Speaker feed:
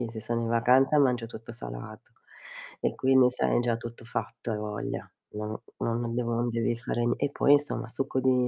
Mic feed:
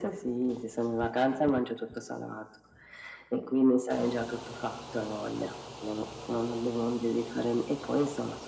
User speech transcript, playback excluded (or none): none